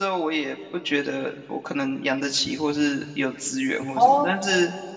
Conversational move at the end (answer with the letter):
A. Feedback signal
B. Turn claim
A